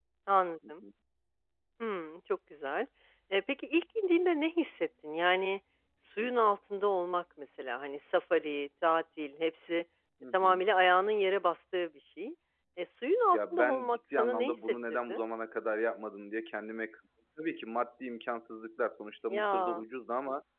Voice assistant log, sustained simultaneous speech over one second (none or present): present